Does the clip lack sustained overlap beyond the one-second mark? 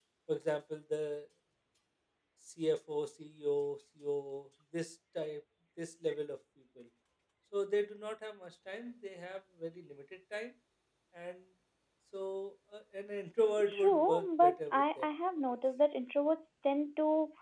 No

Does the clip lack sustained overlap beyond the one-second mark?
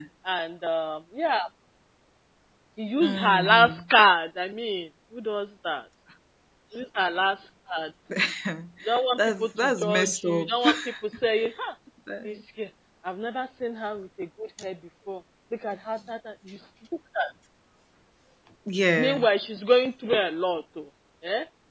No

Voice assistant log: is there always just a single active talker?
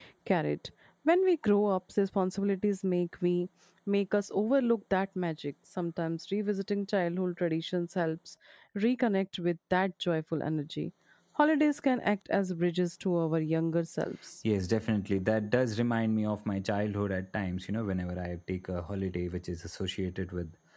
Yes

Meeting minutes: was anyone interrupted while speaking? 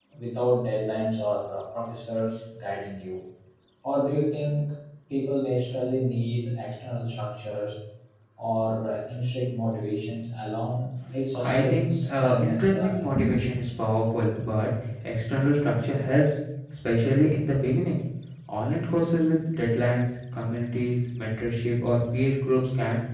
Yes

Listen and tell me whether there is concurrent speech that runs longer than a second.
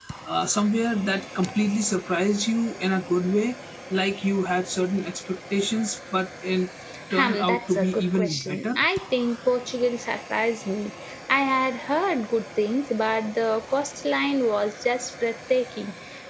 Yes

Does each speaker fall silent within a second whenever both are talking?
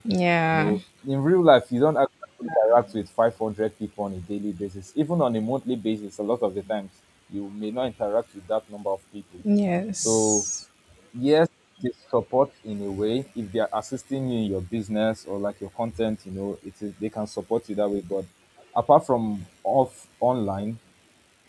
Yes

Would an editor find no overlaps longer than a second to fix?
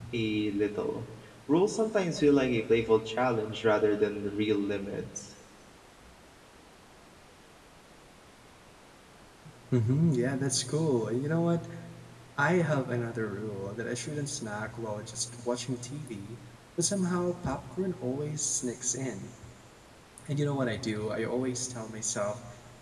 Yes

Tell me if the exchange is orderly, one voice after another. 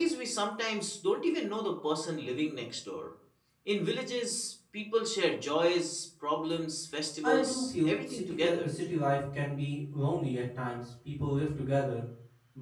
No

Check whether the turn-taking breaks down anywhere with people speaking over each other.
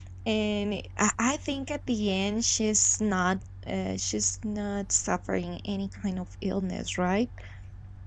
No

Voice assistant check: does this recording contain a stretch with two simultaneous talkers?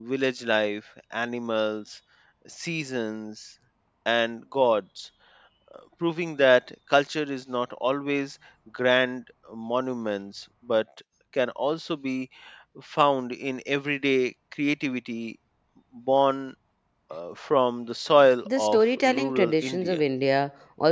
Yes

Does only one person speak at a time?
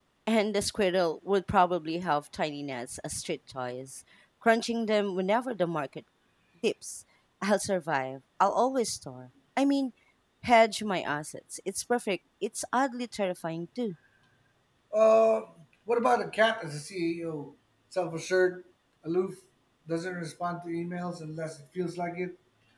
Yes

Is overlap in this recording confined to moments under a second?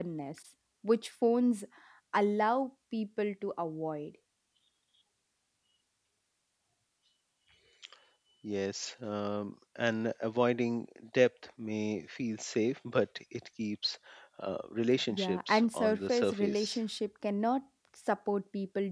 No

